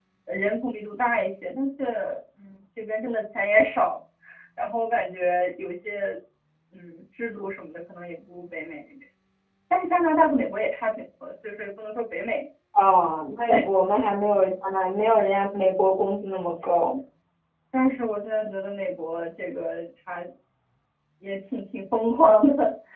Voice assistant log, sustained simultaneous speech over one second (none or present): none